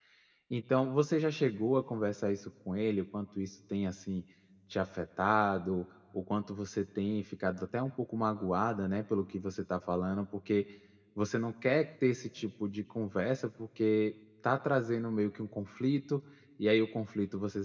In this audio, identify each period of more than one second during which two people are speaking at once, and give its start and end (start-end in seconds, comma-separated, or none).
none